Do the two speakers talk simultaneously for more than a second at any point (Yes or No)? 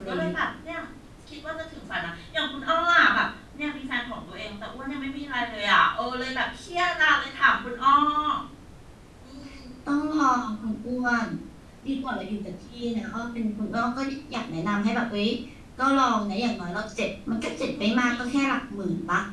No